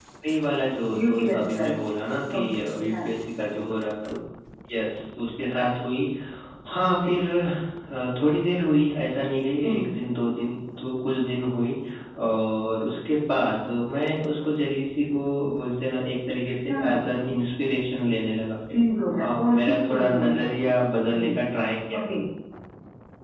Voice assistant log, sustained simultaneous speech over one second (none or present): present